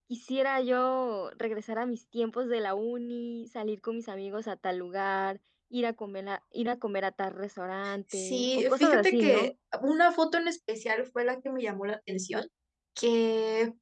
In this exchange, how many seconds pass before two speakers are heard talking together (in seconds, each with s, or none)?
8.1 s